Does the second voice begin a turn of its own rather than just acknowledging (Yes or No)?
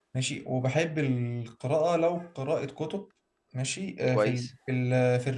No